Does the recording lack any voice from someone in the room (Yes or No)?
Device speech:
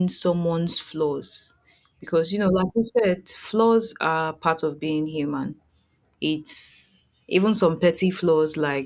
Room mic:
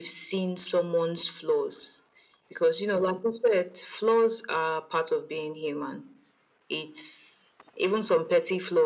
Yes